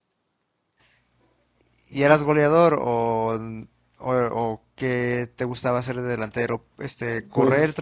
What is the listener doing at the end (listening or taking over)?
listening